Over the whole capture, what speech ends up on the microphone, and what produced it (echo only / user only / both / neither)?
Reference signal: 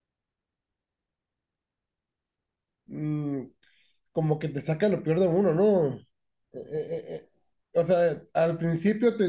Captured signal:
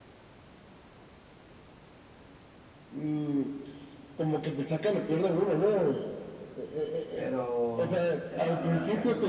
both